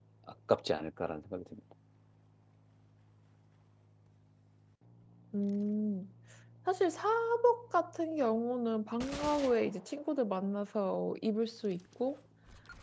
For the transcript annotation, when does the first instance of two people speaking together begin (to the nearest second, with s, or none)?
none